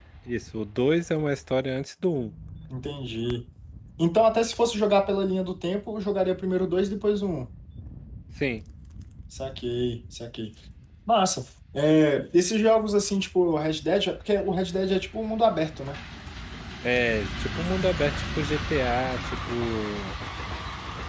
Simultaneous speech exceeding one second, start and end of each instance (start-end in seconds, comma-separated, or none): none